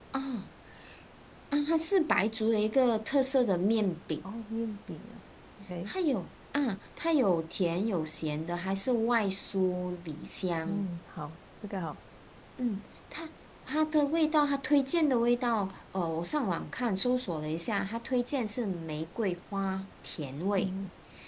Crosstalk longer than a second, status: none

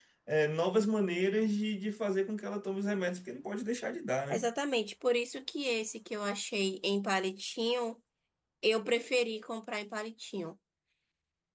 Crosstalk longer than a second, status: none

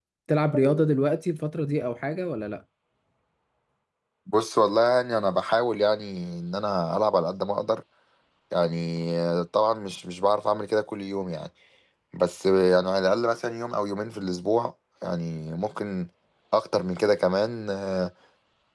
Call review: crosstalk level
none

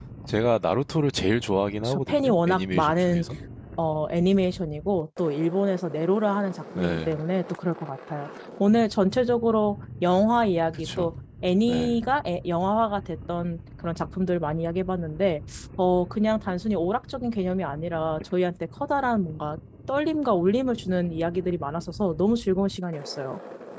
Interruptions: present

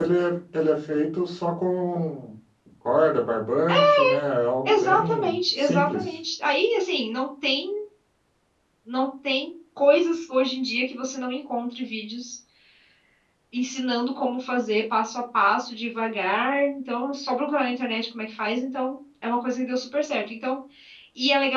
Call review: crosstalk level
present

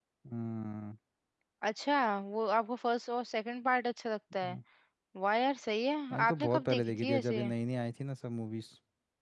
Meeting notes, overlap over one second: present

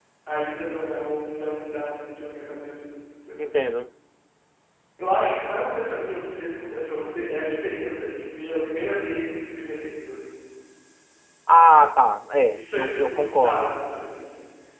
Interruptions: present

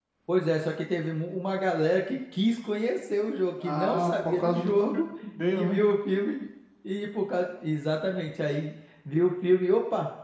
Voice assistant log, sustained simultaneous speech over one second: present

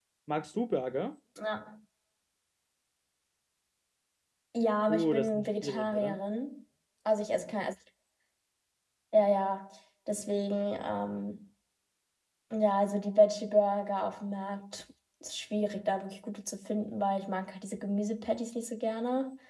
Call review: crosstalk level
present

